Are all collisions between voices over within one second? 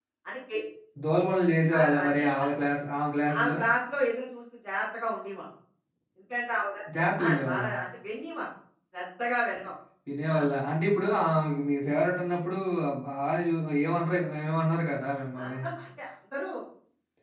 Yes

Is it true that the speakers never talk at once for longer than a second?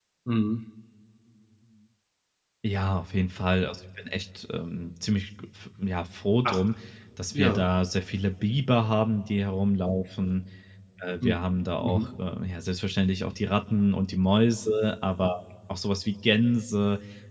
Yes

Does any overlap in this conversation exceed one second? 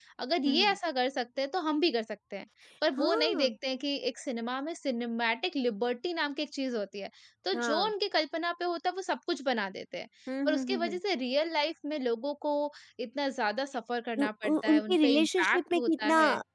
Yes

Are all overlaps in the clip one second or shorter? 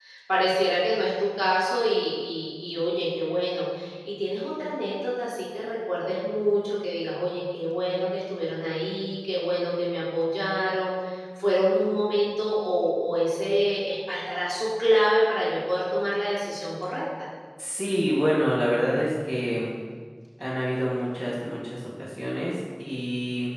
Yes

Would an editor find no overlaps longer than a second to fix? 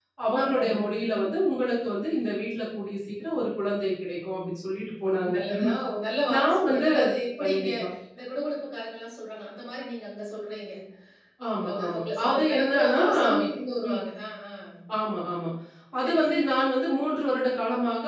No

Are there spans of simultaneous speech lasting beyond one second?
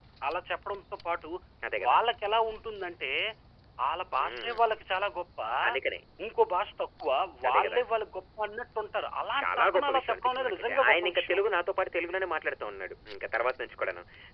Yes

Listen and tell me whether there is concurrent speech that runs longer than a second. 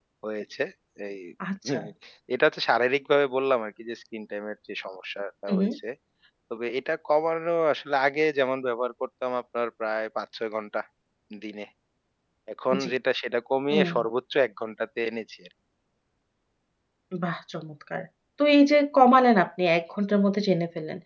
No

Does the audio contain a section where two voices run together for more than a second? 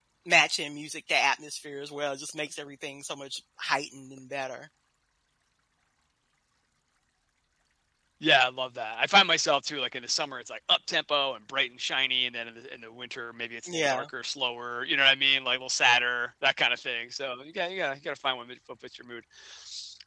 No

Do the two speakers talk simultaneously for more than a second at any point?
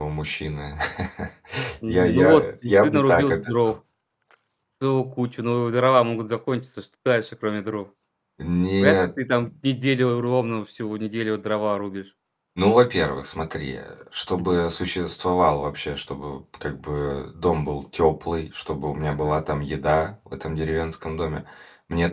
Yes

